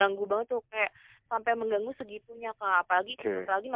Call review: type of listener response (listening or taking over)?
listening